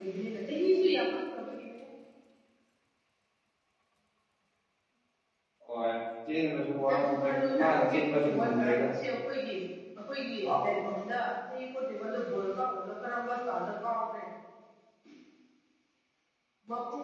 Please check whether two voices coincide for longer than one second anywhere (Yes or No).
Yes